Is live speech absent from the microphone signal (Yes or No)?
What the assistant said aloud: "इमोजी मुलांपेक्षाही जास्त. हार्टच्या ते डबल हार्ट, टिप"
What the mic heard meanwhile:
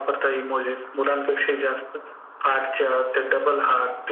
Yes